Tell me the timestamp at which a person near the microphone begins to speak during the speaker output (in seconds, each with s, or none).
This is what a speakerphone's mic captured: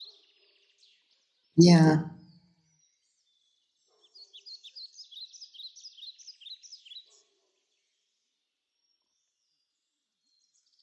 1.6 s